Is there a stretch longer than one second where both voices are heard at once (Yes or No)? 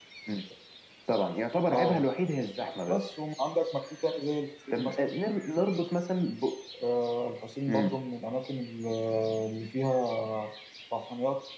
No